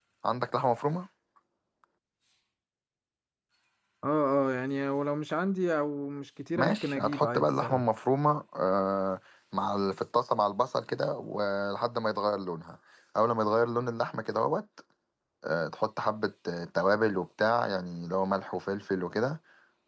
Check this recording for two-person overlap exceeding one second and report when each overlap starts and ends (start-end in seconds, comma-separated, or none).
6.6-7.8